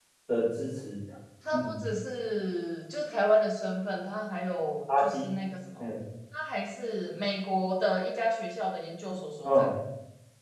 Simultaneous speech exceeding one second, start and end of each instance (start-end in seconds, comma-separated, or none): none